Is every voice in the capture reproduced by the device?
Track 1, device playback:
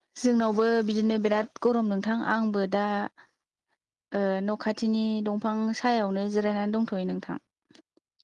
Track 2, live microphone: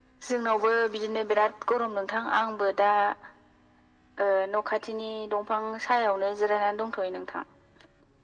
Yes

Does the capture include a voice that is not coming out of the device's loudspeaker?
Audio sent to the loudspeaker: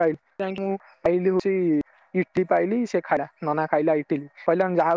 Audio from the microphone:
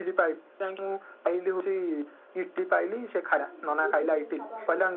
Yes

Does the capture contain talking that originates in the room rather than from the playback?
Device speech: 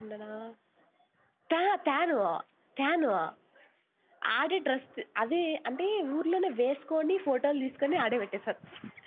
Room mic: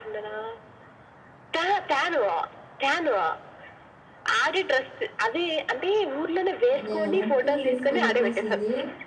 Yes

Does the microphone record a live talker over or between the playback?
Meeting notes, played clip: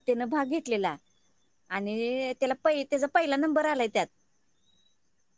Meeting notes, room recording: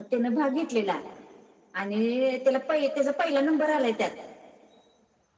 No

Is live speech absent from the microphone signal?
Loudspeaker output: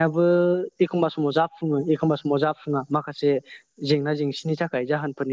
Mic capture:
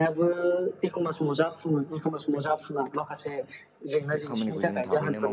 No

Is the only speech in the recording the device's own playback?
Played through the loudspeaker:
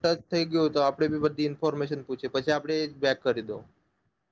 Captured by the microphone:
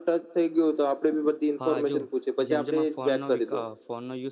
No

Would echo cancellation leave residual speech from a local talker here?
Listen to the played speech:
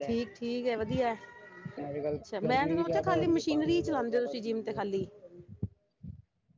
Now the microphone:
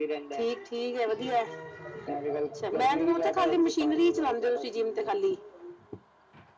Yes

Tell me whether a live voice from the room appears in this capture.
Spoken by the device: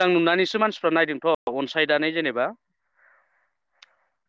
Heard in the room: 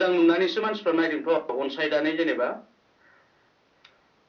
No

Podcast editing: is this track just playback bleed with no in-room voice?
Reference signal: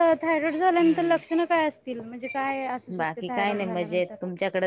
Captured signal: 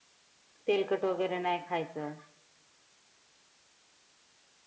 No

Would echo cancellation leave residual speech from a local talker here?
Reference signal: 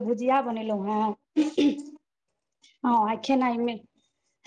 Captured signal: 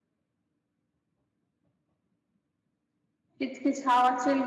Yes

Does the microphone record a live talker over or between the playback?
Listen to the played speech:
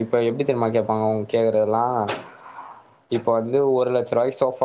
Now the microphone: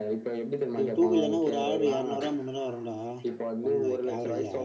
Yes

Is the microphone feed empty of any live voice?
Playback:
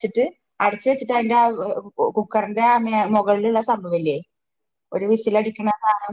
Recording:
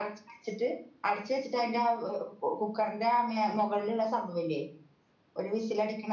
Yes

